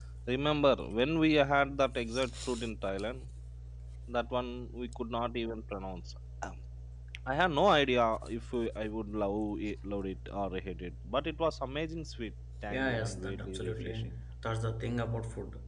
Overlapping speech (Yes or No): Yes